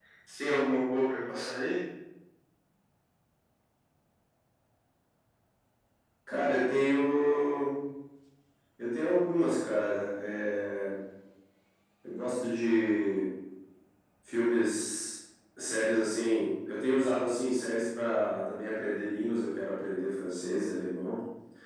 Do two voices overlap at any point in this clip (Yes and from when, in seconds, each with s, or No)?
No